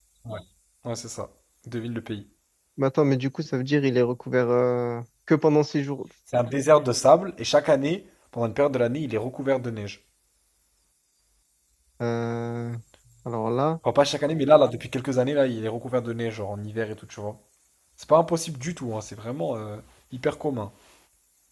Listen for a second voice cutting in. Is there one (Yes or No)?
No